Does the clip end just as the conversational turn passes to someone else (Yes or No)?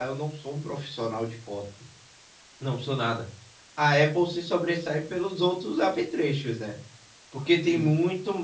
No